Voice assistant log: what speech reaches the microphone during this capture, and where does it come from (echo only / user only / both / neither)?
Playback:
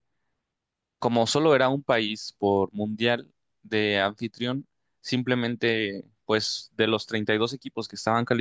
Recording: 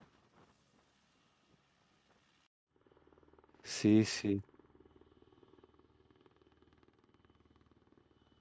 user only